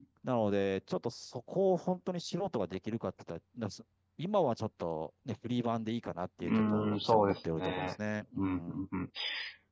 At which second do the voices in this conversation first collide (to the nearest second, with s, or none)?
6 s